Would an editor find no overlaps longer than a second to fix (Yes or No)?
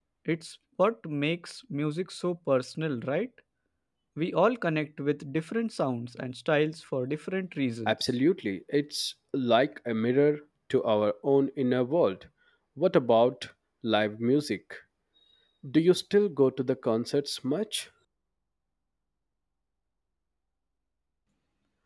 Yes